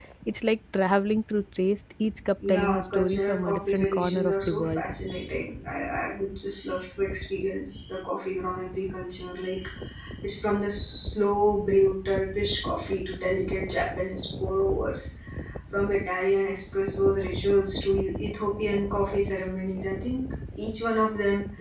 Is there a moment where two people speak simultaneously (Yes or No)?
Yes